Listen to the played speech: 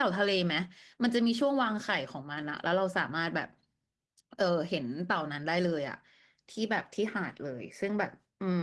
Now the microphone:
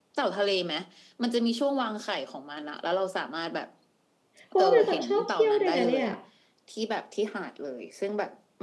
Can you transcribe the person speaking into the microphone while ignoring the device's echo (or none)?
เพราะว่าเป็นคนชอบเที่ยวด้วยนะเนี่ย